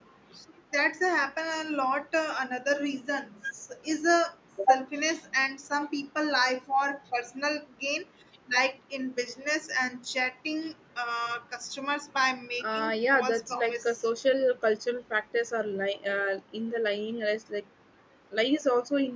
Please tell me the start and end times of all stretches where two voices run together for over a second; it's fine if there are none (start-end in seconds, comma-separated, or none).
12.7-14.0